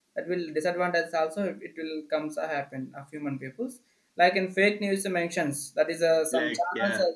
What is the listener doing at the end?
listening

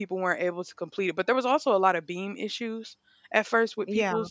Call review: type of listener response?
listening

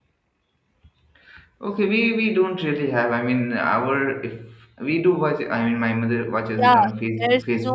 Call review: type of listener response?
taking over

